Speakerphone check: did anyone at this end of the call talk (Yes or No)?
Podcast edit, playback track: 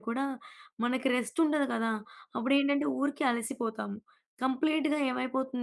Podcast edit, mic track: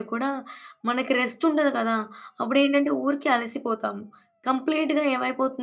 No